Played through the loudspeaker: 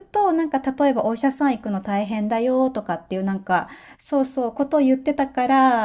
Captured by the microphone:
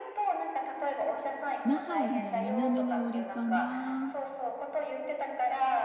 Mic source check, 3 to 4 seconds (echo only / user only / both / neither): both